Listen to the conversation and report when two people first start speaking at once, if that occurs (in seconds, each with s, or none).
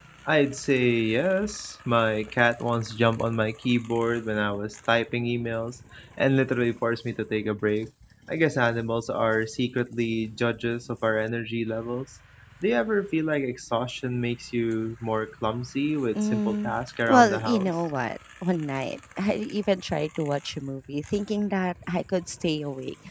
16.1 s